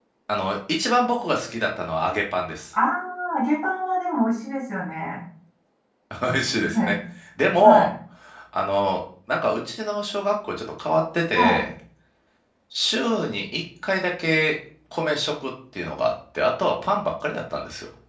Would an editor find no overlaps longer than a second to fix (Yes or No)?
Yes